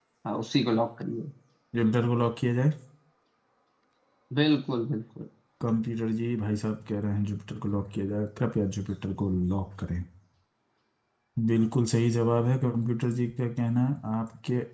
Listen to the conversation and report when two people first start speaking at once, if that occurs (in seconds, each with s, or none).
none